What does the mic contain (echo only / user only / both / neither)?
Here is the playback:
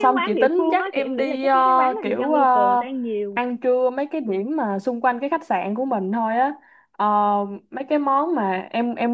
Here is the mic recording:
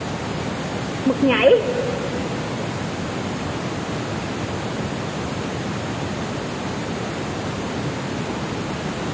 user only